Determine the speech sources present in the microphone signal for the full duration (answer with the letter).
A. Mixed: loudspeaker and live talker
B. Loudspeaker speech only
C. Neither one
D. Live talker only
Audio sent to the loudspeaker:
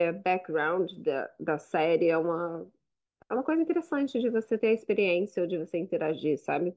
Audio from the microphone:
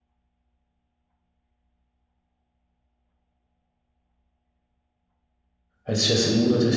D